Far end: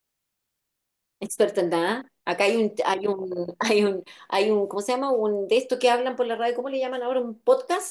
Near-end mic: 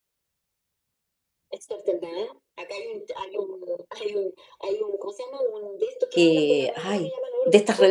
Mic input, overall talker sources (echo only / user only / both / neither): both